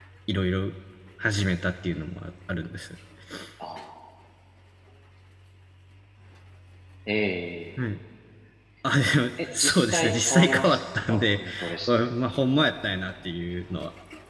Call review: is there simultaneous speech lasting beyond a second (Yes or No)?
Yes